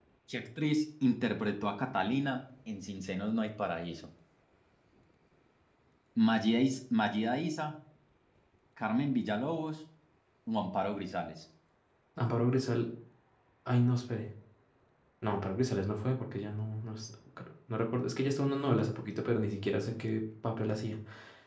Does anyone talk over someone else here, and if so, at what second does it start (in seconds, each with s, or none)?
none